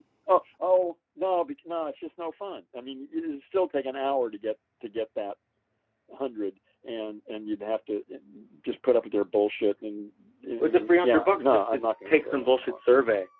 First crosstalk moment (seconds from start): 10.6 s

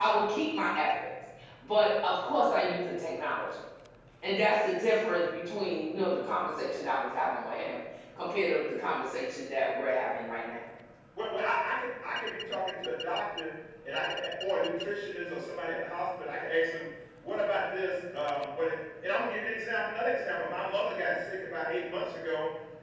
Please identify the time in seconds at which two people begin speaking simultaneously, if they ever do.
none

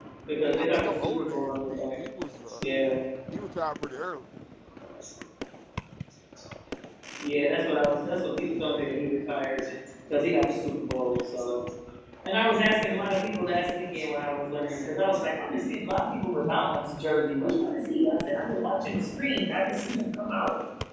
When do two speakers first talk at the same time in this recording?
0.6 s

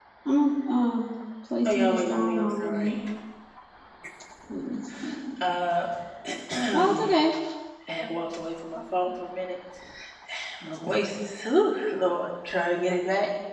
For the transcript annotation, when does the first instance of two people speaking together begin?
1.6 s

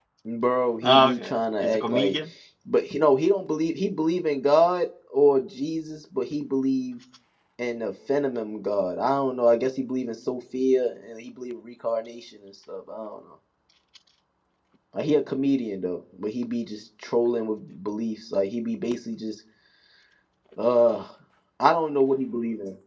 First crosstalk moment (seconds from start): 0.8 s

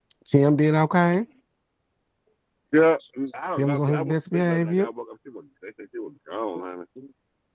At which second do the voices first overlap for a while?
3.6 s

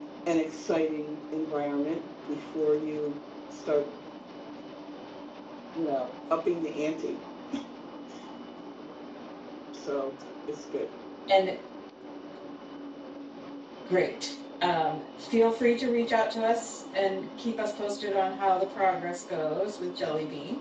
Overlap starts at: none

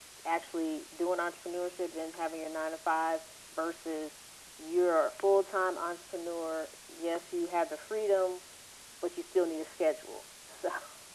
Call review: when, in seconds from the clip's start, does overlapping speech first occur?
none

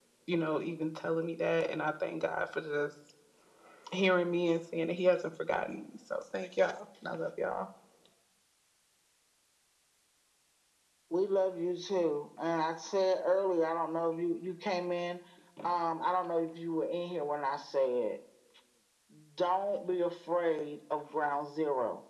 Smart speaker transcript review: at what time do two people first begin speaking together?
none

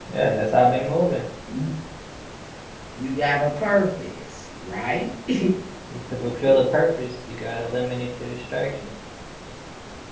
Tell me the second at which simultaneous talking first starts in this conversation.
none

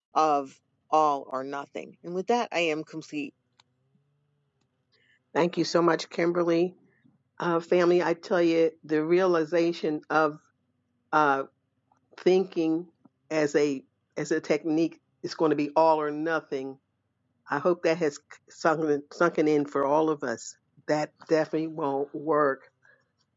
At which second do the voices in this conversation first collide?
none

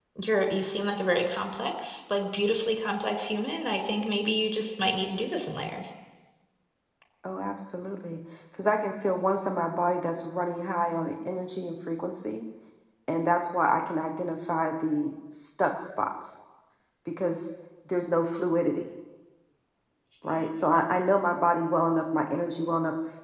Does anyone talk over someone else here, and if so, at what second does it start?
none

